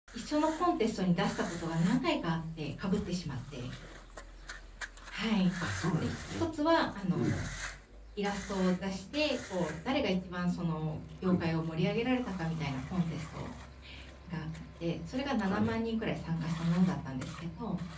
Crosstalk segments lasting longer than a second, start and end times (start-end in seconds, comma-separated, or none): none